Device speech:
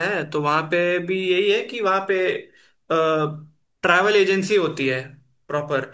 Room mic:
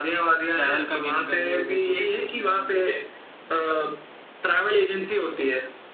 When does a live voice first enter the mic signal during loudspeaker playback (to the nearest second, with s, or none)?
1 s